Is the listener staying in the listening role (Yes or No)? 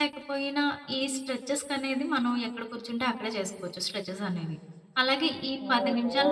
Yes